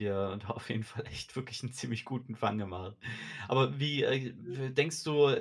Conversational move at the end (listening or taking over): listening